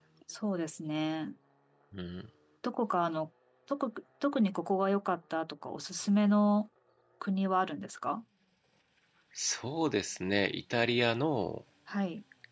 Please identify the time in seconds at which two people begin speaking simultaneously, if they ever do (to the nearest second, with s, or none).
none